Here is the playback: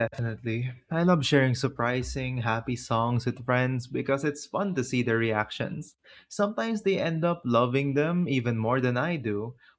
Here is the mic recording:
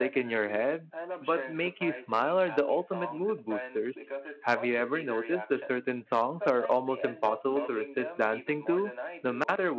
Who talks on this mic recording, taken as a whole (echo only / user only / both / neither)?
both